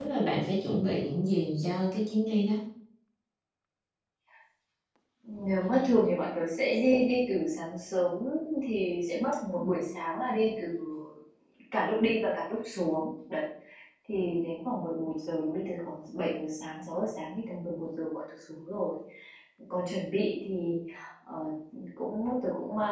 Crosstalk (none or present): none